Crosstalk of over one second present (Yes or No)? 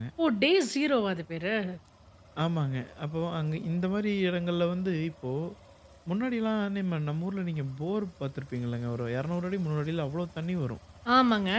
No